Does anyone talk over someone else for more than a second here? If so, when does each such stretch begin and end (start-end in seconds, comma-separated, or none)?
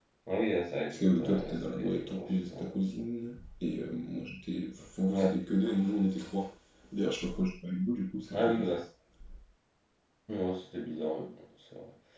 0.9-2.5